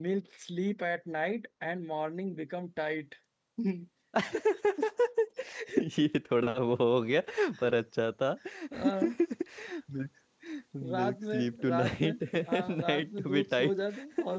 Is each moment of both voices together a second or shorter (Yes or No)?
No